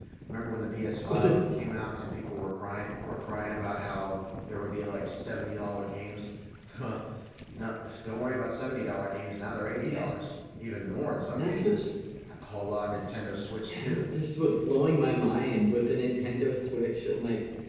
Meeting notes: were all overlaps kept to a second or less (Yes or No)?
Yes